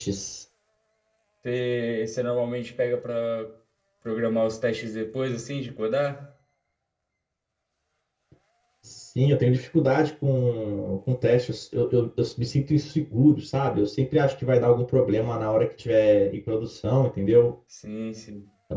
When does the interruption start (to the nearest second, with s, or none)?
none